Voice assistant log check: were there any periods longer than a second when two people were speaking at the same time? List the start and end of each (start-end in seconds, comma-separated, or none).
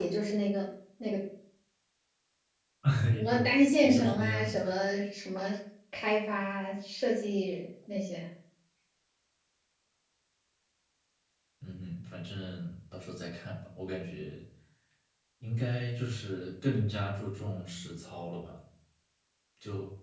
3.2-4.5